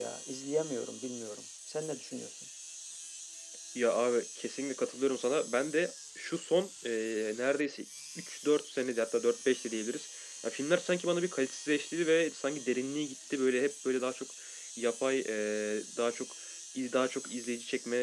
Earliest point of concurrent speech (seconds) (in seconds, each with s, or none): none